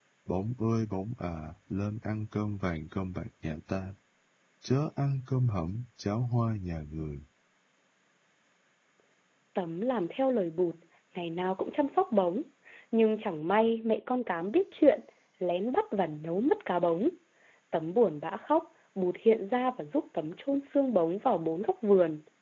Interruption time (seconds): none

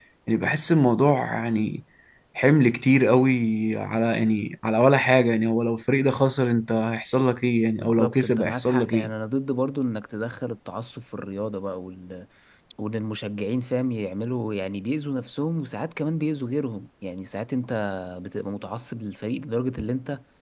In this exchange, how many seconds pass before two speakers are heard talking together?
7.8 s

